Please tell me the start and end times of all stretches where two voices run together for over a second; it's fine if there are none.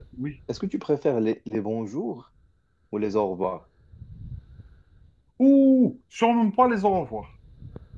none

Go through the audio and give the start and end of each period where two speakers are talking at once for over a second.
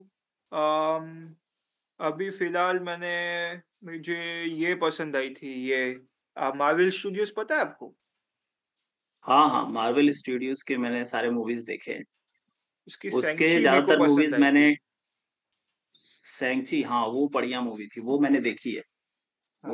13.2-14.7

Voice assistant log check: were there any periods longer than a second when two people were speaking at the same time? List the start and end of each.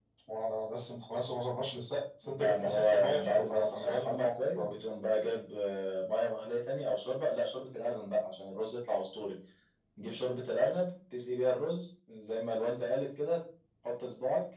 2.2-4.7

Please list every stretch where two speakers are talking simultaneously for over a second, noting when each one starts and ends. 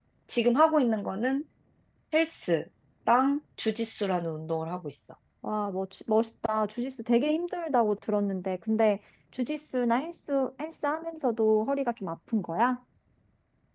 none

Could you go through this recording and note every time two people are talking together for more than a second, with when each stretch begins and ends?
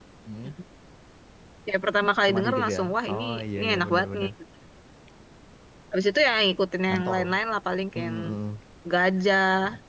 2.3-4.3

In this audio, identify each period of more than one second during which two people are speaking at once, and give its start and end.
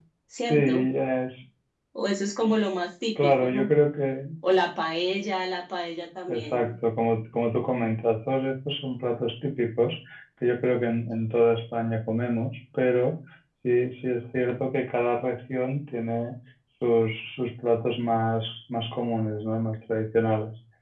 none

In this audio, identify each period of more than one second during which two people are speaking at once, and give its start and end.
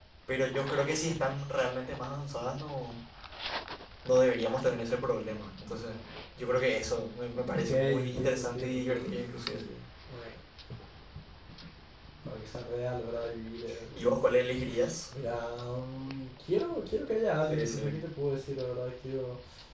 7.5-9.6

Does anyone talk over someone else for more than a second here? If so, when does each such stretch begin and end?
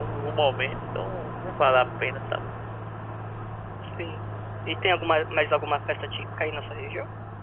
none

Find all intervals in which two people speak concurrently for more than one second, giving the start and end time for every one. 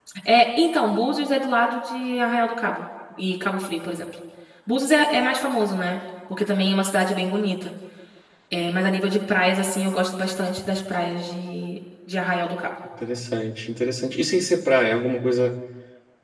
none

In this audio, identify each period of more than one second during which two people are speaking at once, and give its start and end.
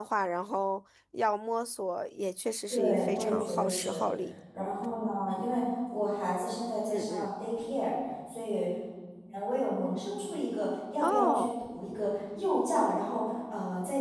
2.7-4.0

